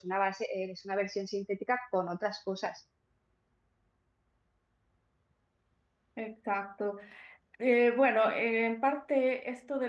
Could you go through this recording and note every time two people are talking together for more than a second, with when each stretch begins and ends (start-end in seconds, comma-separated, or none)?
none